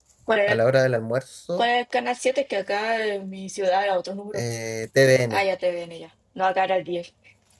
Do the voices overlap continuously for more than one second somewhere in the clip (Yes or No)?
No